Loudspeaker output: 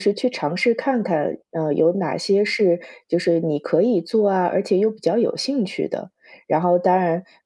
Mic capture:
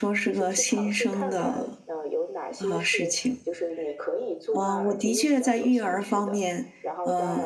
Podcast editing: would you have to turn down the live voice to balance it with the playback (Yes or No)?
Yes